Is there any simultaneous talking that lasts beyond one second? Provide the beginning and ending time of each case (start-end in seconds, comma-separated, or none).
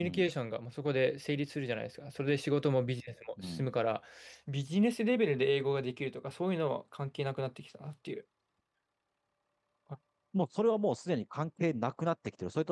none